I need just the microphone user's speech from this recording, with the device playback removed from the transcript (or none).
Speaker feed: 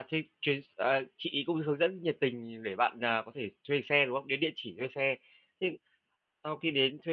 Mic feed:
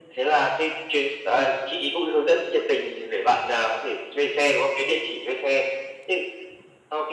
none